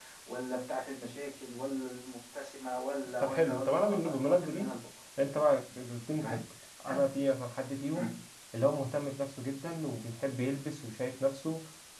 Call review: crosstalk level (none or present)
present